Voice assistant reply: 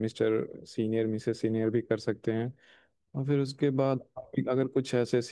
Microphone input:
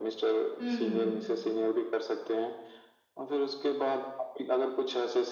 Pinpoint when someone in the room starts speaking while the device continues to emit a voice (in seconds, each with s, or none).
0.6 s